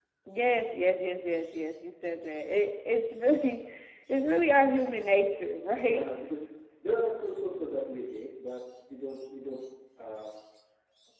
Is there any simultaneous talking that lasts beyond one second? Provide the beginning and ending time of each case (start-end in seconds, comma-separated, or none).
none